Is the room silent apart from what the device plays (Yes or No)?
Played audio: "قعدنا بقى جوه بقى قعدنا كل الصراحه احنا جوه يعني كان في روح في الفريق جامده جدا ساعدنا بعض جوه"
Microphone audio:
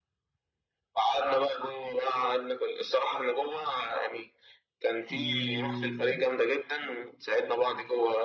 No